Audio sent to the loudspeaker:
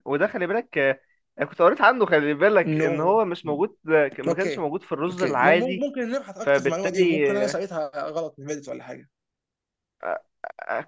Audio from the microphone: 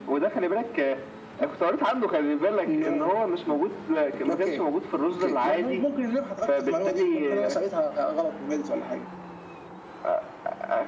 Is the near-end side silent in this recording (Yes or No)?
Yes